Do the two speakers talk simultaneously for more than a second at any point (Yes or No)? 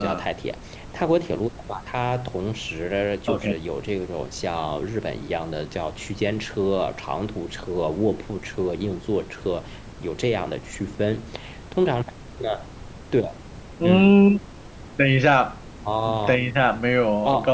No